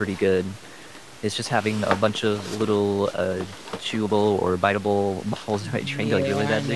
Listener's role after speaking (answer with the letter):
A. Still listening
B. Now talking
B